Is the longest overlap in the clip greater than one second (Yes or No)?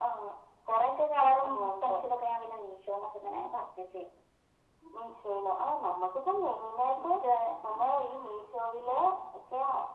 No